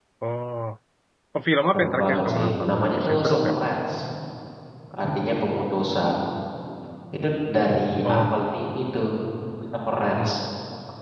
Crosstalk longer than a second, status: present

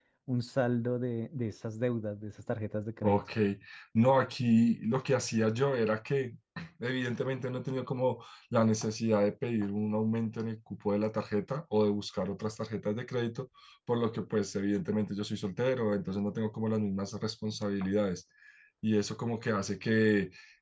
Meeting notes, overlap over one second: none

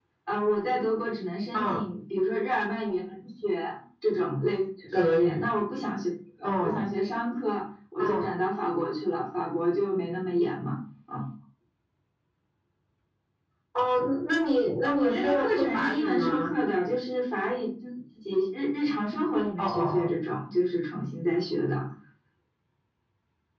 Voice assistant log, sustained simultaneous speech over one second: present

